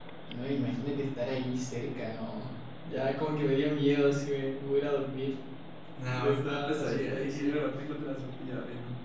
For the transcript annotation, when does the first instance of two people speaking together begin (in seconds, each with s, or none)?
6.1 s